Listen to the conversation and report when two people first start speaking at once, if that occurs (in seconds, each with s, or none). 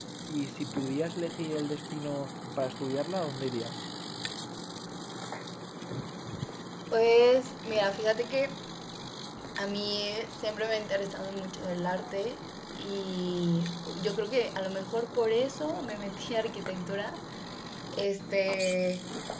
none